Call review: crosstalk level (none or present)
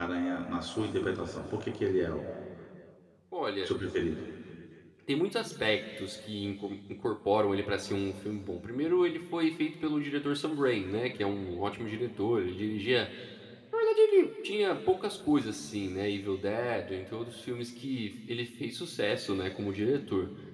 none